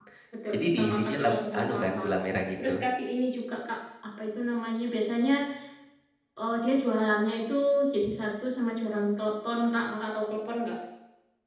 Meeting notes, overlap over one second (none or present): present